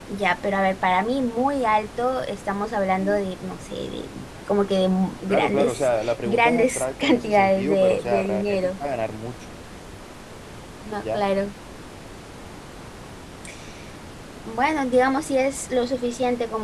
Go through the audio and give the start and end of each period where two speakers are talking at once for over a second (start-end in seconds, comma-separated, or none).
5.3-8.7